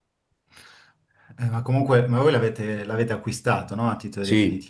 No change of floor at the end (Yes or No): No